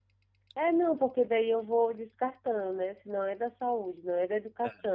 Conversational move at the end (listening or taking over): listening